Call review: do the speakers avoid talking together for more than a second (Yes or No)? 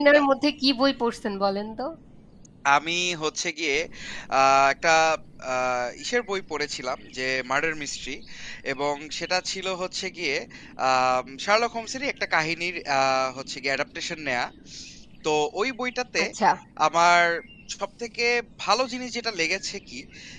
Yes